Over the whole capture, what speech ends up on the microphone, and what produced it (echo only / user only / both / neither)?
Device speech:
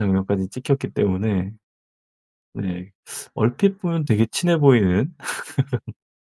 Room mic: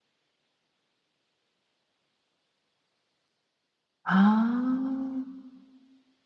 user only